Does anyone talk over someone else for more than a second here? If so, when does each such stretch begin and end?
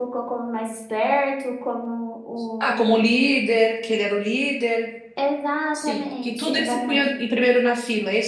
5.7-7.1

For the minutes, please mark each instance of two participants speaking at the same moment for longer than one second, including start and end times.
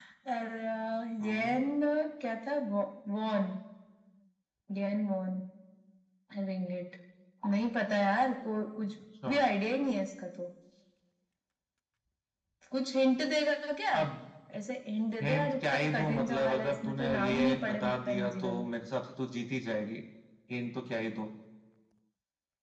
15.2-18.6

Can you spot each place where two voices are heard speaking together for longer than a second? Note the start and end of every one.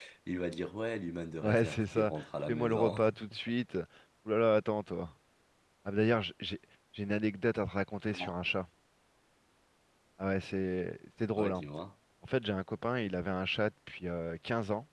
1.4-3.0

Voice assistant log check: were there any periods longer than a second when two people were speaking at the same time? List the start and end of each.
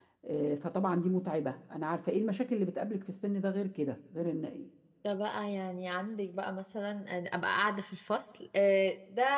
none

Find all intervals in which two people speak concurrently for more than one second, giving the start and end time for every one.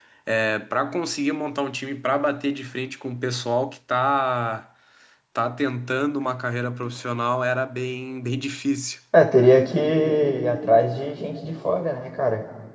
none

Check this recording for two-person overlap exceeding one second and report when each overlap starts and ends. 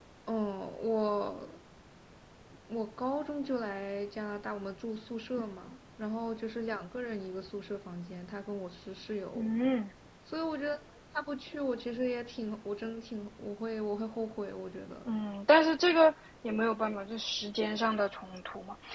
none

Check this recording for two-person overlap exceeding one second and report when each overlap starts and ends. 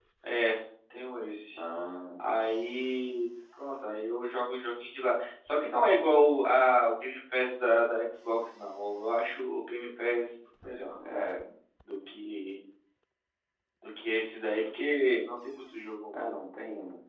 none

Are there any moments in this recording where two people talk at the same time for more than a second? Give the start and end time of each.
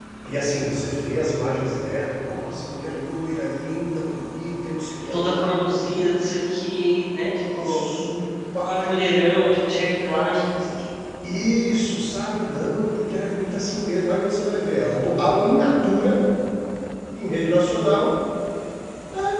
8.6-10.5

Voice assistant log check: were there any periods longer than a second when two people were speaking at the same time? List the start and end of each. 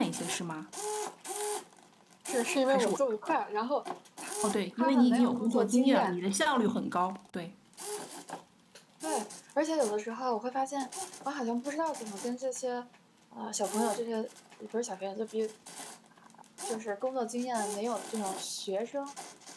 4.8-6.2

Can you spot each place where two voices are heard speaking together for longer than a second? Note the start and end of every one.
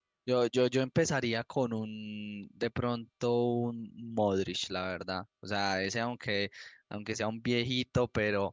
none

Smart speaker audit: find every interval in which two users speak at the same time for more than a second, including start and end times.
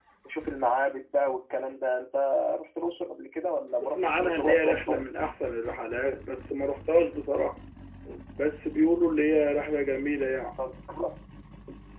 3.8-5.3

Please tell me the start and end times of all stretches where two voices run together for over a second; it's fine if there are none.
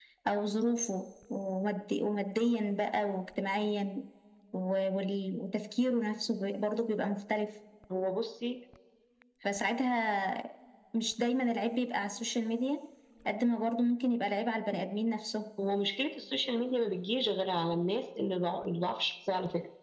none

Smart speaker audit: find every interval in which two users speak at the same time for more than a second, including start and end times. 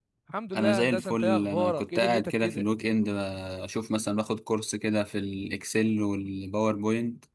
0.6-2.7

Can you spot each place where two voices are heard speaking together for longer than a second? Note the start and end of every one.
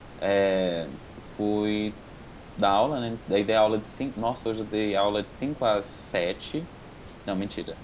none

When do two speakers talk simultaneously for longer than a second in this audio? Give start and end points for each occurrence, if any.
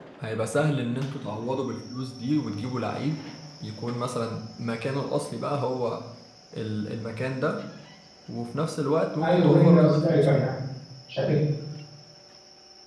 9.2-10.5

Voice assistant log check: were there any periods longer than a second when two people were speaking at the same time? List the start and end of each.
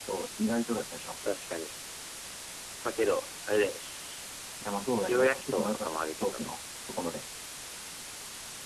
5.1-6.5

